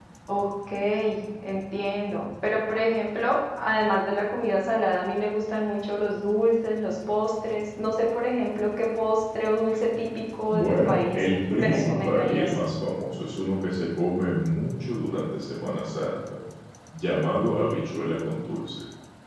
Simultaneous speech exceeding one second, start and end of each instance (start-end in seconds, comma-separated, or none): 10.5-12.5